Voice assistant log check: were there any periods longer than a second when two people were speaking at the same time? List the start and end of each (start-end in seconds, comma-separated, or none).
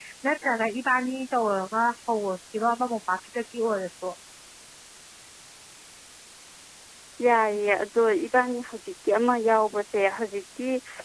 none